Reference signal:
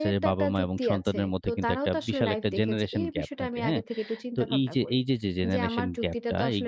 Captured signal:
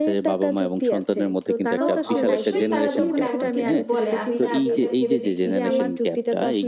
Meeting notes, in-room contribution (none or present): present